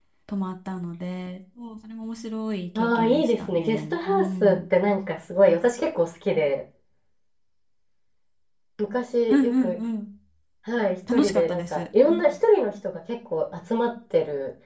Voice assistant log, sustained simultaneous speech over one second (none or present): present